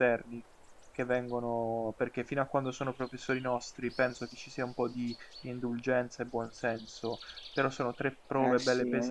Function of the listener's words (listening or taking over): taking over